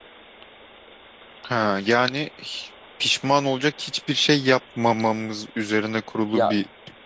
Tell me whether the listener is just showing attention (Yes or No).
No